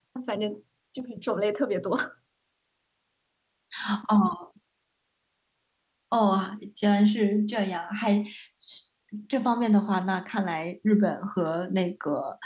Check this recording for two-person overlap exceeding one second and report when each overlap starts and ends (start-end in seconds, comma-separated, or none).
none